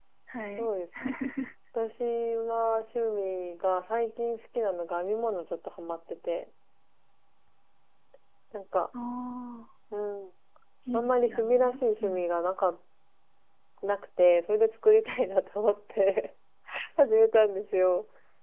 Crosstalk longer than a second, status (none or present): present